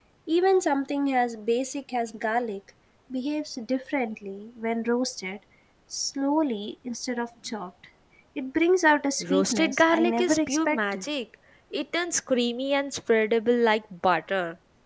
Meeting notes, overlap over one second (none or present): present